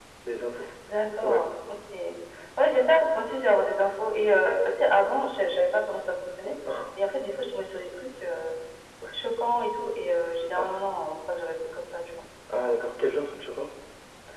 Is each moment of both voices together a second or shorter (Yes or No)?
Yes